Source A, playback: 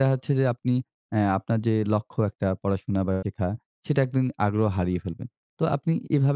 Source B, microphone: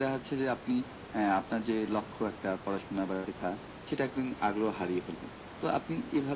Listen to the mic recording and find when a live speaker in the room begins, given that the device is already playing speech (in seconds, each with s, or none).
none